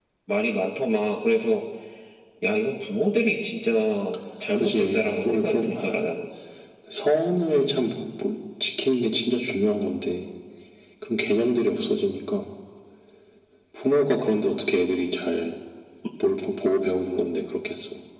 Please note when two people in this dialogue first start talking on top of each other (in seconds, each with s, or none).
4.5 s